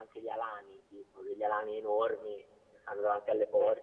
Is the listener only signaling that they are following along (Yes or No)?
No